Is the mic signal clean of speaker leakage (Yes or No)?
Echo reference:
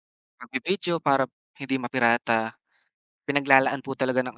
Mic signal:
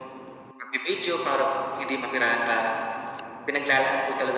No